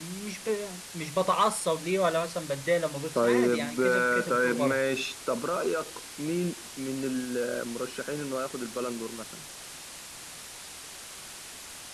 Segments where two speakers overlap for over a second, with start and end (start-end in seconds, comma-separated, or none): 3.1-4.8